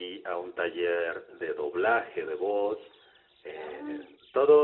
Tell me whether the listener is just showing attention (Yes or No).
Yes